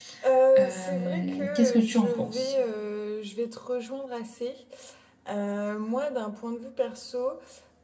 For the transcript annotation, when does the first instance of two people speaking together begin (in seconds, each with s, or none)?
0.6 s